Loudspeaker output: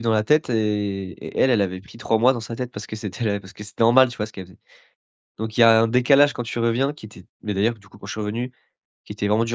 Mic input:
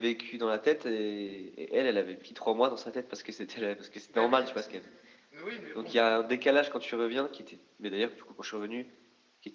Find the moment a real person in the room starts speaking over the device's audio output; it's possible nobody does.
4 s

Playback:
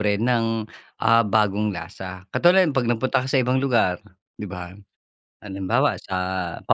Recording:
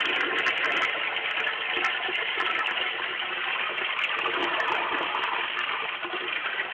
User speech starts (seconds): none

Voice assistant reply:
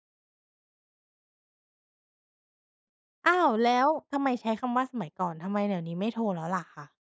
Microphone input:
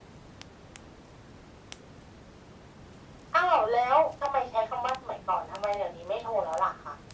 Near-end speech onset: none

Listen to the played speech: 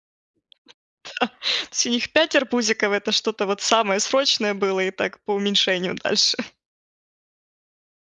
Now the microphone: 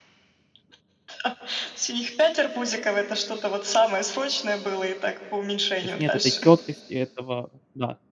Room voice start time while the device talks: 6 s

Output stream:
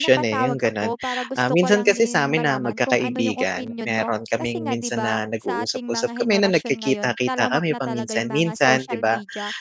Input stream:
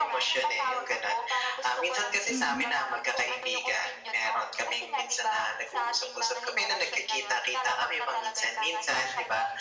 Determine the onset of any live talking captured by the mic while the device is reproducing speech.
2 s

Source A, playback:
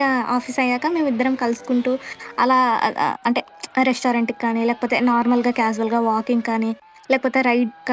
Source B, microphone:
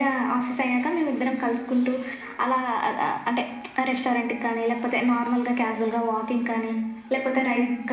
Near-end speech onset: none

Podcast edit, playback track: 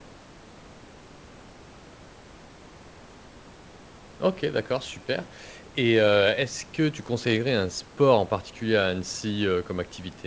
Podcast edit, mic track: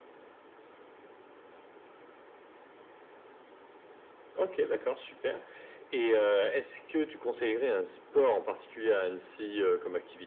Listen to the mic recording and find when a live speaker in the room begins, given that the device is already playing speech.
none

